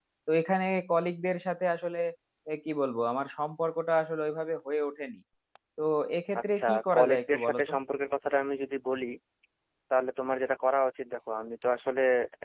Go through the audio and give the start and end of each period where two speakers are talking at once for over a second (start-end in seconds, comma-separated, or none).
6.4-7.7